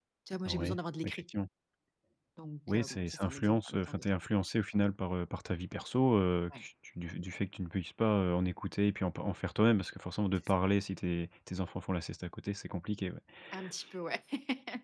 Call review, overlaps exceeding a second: present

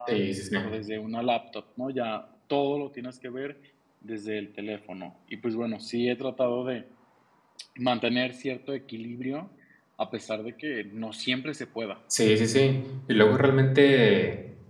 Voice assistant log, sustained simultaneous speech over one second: none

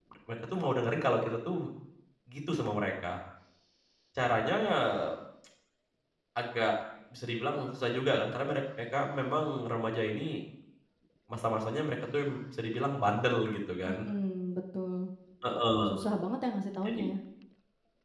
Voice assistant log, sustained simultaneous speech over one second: none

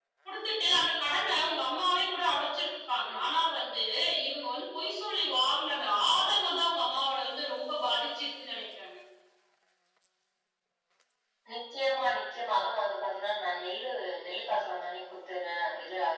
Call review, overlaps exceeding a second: none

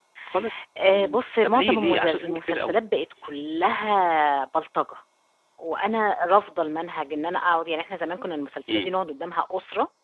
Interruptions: present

